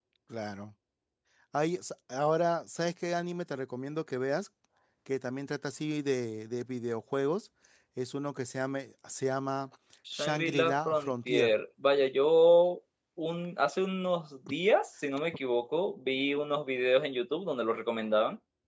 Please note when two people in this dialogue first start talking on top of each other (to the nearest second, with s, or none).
10 s